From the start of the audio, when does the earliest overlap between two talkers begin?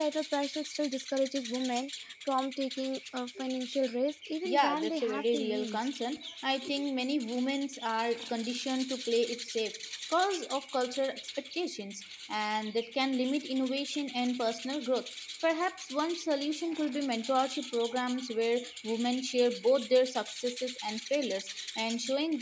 4.4 s

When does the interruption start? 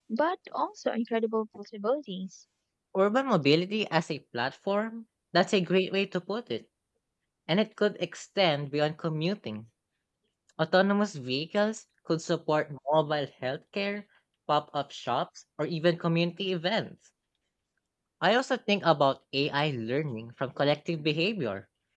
none

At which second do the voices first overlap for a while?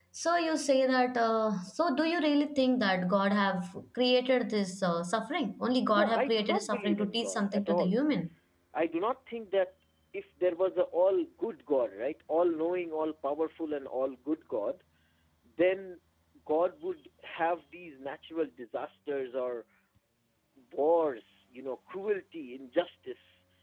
5.9 s

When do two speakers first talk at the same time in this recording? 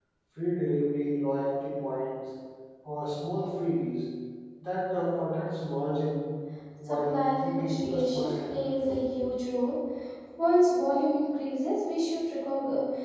6.8 s

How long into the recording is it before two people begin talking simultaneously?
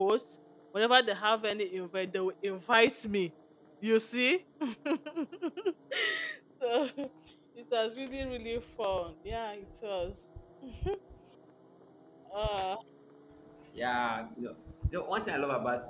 none

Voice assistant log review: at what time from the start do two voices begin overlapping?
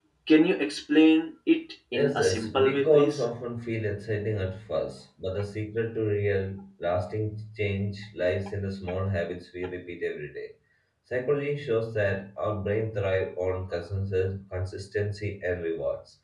1.9 s

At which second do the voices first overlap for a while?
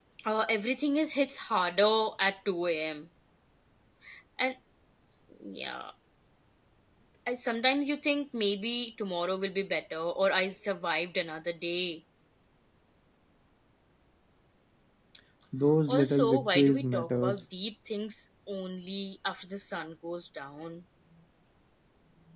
15.9 s

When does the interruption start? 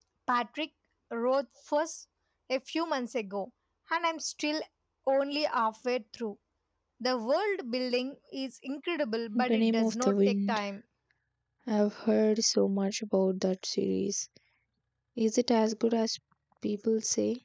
9.3 s

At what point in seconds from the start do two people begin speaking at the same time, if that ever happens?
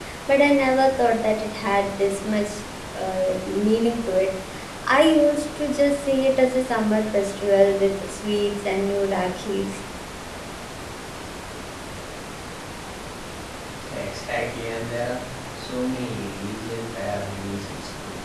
none

